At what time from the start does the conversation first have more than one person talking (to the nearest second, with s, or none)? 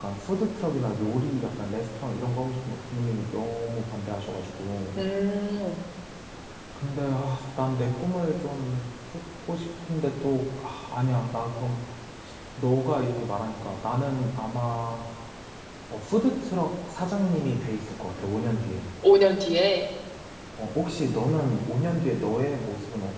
none